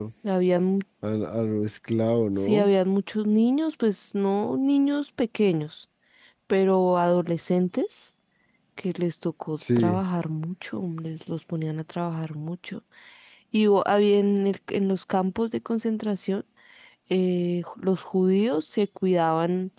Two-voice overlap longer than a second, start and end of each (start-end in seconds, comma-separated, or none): none